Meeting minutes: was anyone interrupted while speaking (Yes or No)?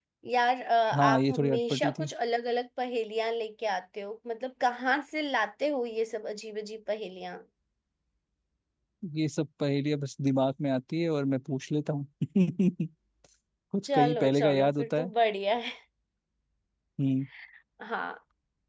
Yes